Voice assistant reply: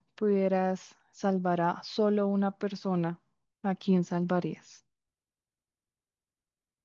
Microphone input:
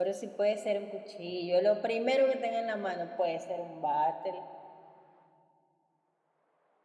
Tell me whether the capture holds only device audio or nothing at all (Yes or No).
No